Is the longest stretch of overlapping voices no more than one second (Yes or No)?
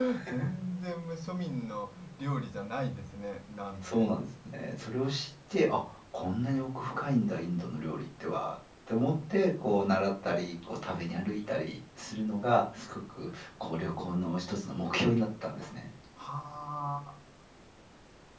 Yes